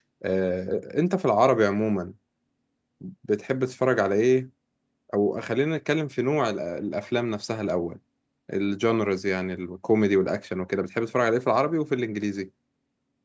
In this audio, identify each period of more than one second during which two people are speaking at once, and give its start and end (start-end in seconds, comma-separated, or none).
none